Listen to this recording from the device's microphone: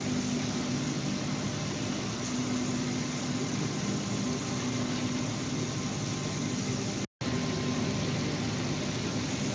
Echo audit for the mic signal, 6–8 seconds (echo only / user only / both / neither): neither